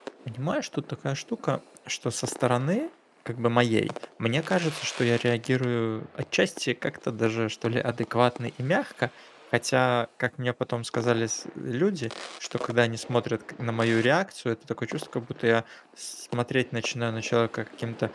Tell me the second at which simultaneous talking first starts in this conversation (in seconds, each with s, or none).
none